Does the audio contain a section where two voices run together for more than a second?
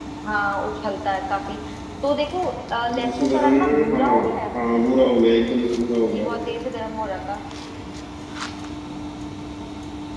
Yes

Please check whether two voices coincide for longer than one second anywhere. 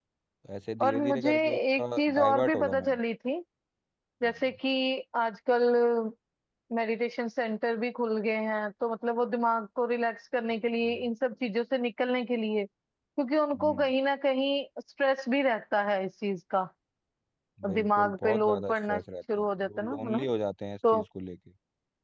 Yes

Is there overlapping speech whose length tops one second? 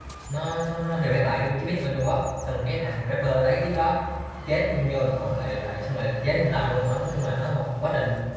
No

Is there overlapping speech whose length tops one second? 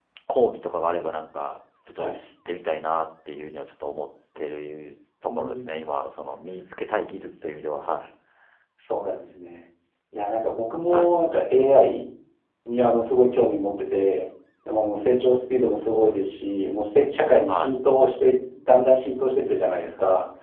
No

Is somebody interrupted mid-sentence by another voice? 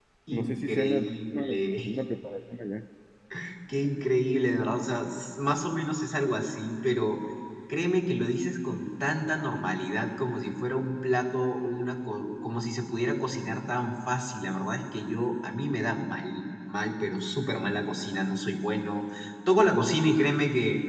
Yes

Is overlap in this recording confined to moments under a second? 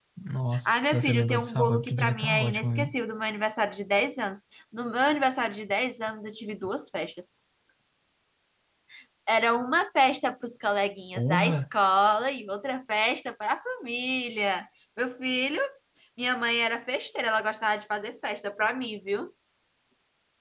No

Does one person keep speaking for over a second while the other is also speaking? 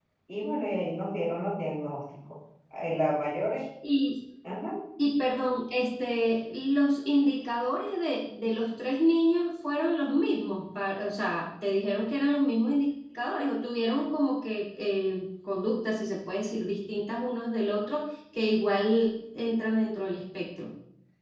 No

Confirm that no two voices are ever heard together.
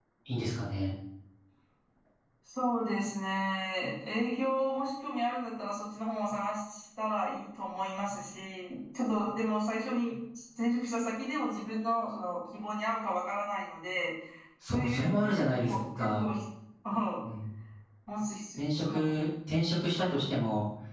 No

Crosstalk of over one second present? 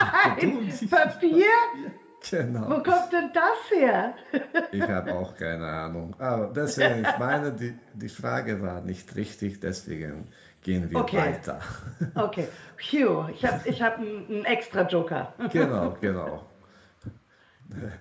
Yes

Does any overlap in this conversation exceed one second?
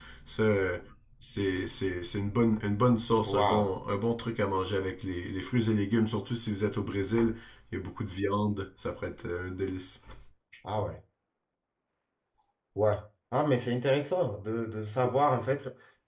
No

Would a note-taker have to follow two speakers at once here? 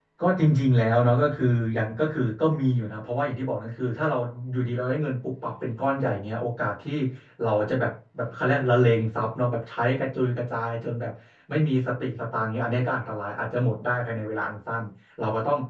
No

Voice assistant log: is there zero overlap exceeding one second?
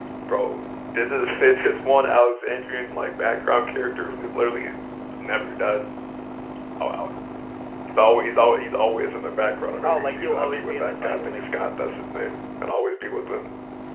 No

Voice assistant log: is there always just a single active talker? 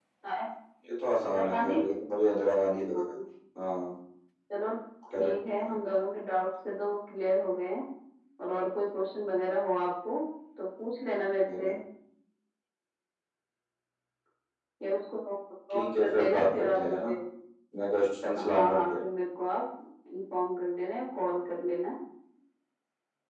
No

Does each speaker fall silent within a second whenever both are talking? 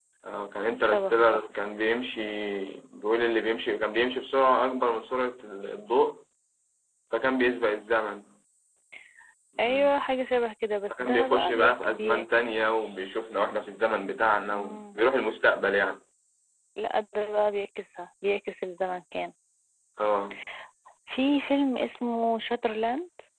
No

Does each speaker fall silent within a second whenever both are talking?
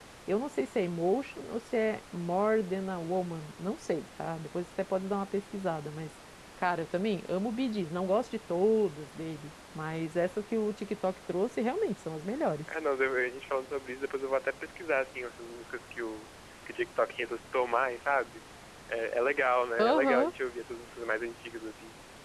Yes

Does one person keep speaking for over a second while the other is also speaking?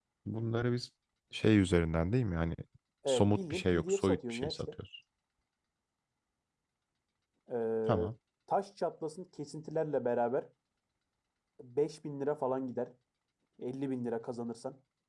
Yes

